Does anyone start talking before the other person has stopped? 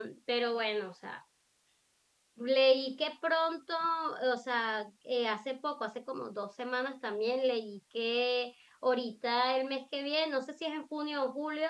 No

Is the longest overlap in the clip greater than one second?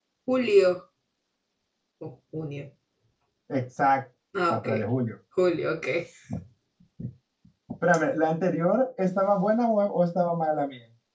No

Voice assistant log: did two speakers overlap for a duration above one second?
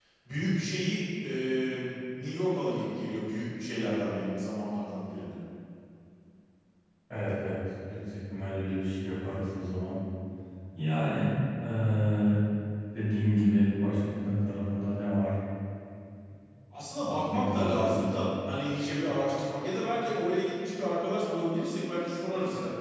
Yes, from 17.0 s

